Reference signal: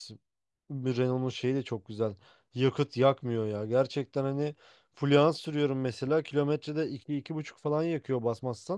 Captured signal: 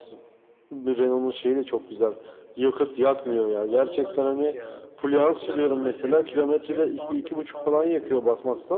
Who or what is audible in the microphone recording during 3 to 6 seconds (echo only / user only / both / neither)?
both